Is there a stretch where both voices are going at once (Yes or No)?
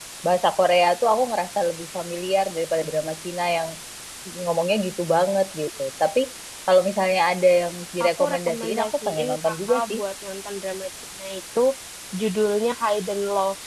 Yes